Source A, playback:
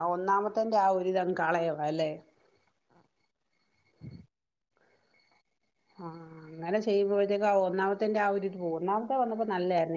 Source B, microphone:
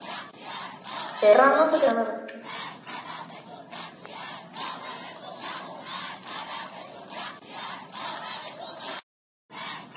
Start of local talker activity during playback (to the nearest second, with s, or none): 1 s